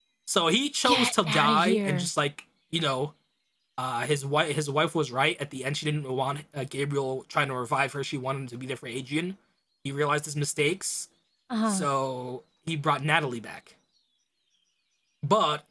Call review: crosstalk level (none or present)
present